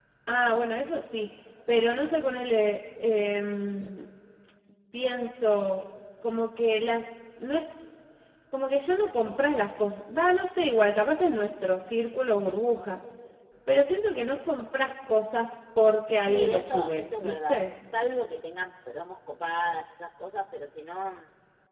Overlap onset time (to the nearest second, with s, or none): 16 s